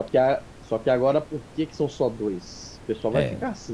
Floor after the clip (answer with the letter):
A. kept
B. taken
A